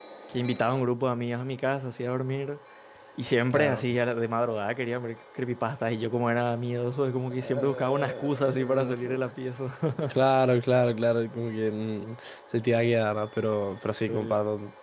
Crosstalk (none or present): present